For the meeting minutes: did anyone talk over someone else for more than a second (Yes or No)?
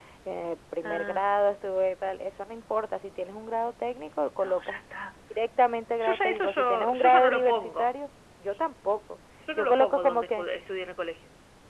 Yes